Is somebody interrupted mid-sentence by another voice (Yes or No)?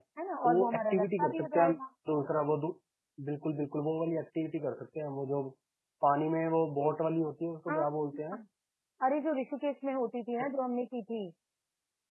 Yes